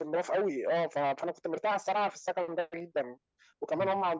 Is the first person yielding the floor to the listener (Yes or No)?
No